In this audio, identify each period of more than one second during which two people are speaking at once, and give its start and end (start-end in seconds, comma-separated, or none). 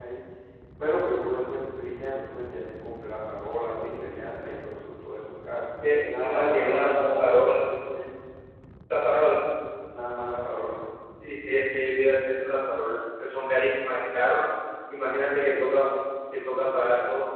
6.0-7.6